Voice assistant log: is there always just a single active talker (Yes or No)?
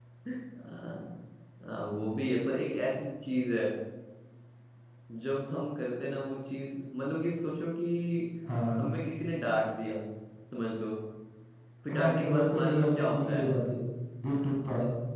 No